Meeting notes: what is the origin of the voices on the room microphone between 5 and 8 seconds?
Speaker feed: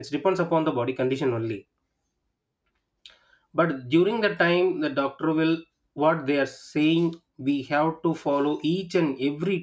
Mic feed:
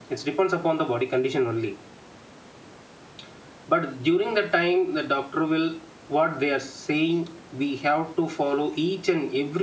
echo only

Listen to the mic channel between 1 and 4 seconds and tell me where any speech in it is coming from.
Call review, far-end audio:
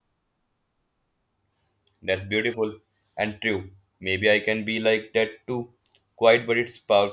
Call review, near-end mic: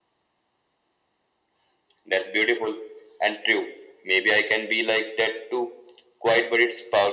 echo only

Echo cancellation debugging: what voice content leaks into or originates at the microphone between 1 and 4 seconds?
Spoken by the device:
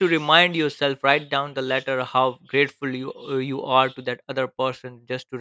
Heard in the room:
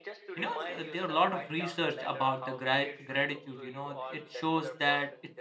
both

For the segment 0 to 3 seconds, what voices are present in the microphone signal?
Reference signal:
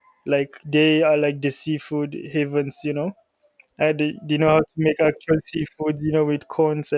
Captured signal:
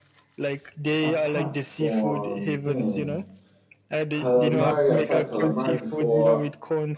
both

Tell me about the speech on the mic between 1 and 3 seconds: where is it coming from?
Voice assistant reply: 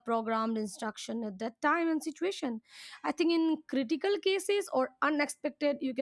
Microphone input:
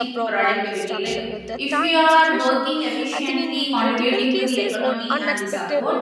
both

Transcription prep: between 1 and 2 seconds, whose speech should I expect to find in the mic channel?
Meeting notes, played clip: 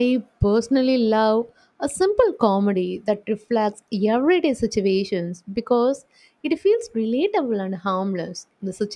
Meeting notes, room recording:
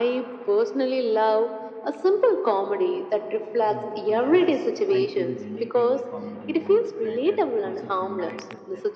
echo only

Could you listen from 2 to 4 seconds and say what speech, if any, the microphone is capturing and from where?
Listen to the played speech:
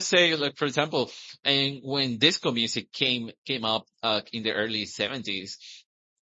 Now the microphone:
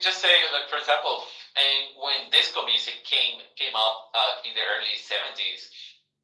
echo only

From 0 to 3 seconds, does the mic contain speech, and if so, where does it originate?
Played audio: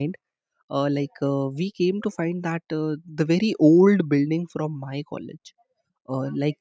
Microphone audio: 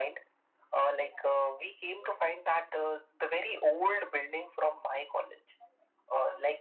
echo only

